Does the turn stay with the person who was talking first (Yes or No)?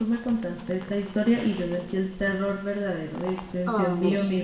Yes